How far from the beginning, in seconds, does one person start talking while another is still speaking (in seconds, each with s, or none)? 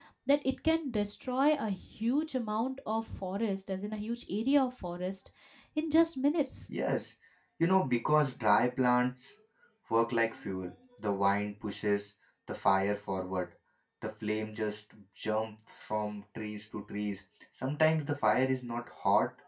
none